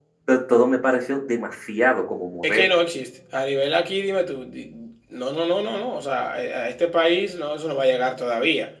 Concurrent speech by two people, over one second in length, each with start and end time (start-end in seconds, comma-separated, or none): none